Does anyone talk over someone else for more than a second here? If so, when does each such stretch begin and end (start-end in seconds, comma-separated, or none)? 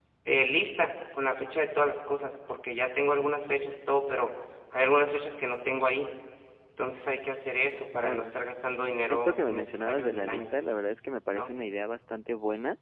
9.1-10.5